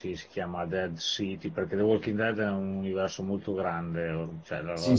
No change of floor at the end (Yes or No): No